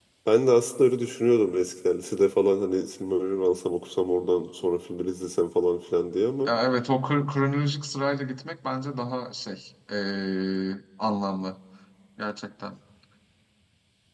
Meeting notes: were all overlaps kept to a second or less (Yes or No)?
Yes